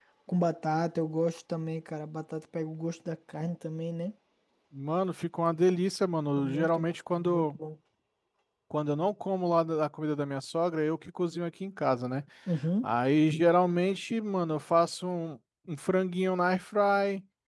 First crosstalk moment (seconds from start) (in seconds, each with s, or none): 6.4 s